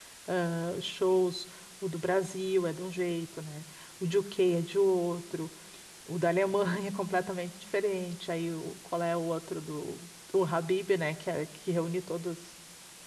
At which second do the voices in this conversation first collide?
none

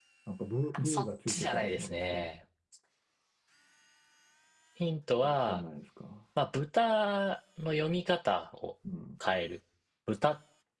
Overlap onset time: 0.8 s

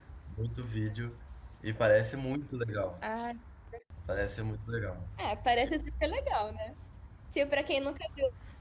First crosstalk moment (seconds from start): none

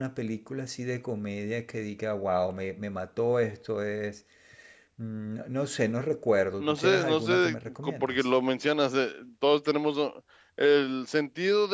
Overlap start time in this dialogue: 6.6 s

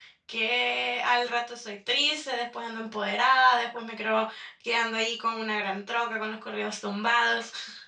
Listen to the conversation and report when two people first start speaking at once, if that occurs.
none

